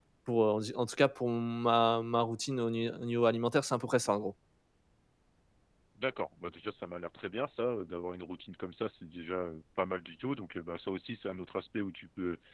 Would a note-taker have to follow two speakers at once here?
No

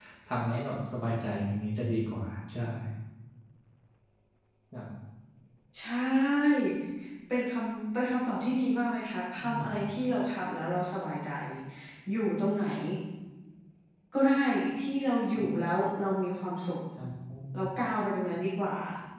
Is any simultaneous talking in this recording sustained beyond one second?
No

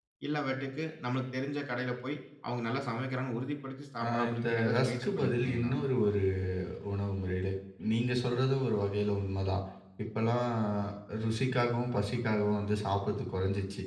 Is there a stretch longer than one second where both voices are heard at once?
Yes, from 4.0 s

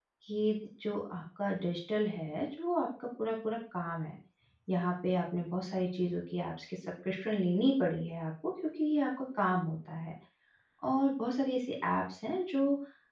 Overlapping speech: No

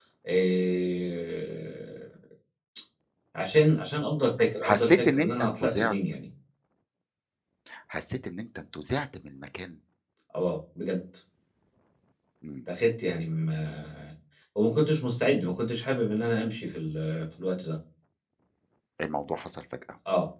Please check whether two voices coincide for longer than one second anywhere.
Yes, from 4.6 s

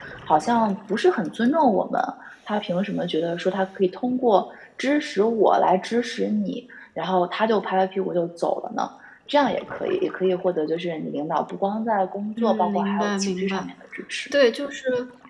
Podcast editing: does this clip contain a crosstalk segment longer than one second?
Yes, from 12.4 s

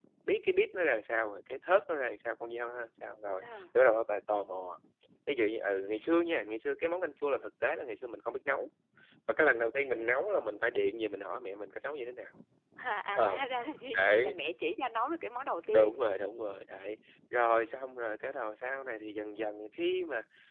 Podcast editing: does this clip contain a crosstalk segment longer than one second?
No

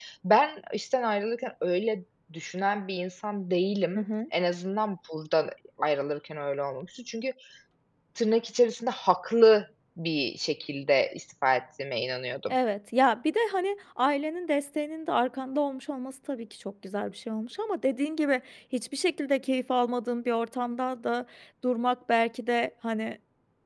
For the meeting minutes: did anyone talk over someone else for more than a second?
No

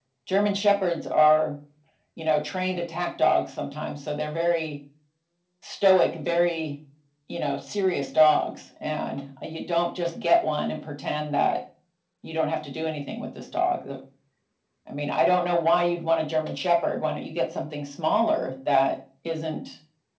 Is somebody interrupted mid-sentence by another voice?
No

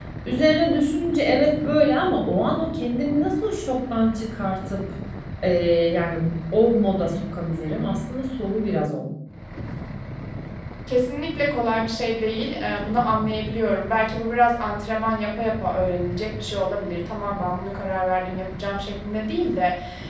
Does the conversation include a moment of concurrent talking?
No

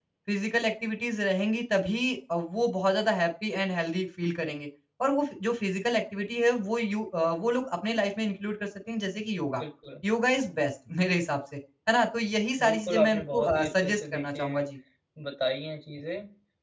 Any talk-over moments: Yes, from 12.6 s

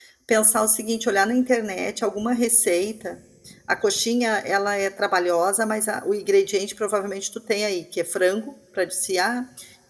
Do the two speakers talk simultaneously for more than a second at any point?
No

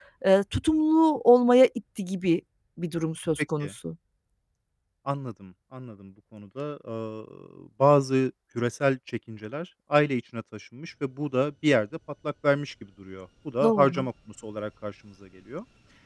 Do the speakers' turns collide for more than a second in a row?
No

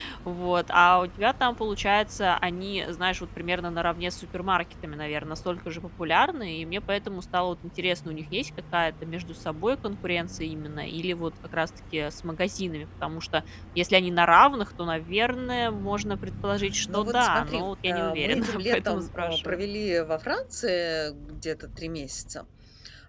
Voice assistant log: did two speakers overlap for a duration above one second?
Yes, from 16.9 s

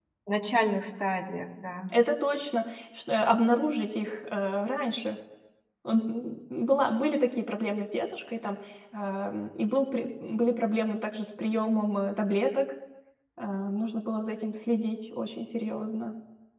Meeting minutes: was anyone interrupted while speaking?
No

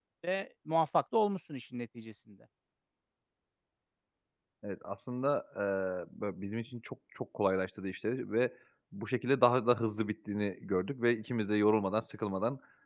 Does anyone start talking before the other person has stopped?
No

